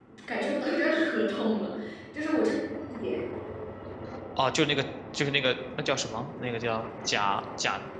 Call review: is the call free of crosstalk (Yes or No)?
Yes